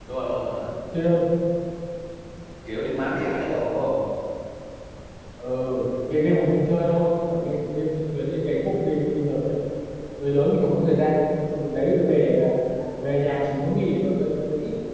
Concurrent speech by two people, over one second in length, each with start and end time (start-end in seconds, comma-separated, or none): none